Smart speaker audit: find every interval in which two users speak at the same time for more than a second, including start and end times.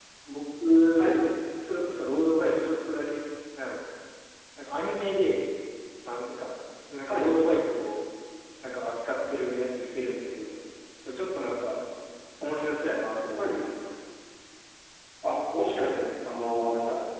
none

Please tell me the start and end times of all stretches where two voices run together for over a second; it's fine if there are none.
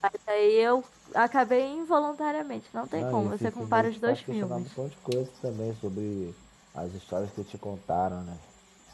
2.9-4.6

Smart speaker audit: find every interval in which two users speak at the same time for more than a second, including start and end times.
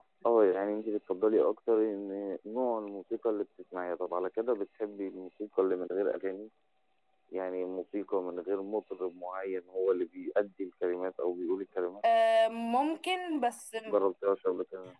none

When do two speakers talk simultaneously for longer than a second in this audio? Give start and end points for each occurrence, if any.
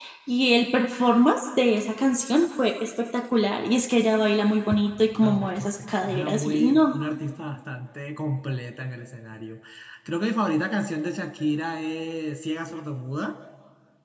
5.2-7.0

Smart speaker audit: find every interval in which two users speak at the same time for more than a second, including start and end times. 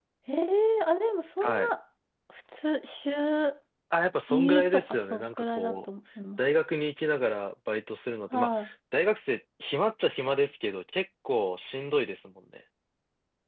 4.3-5.8

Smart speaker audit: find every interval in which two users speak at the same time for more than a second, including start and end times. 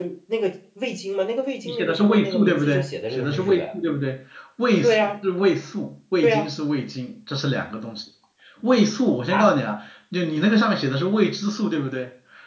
1.6-3.6

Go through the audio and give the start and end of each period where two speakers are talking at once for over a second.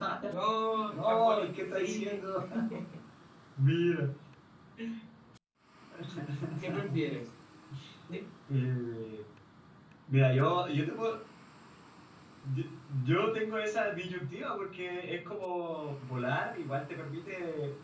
0.9-2.2

